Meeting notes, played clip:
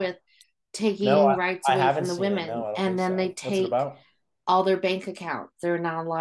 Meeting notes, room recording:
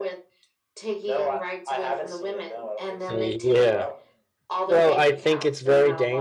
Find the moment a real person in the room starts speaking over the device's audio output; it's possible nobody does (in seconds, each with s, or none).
3.1 s